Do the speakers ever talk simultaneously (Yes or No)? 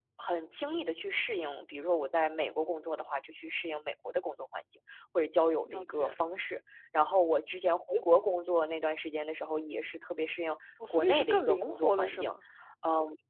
Yes